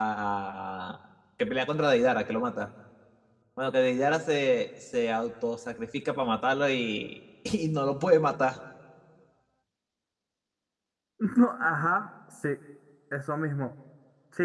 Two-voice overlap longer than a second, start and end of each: none

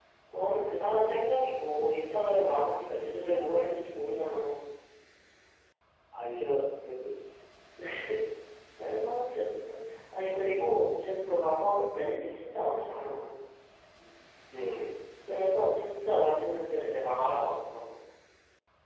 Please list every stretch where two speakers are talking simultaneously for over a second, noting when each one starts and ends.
none

